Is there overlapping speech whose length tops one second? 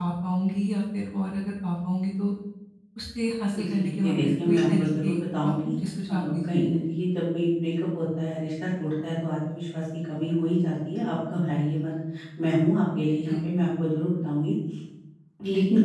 Yes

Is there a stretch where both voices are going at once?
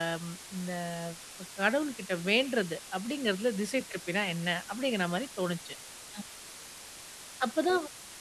No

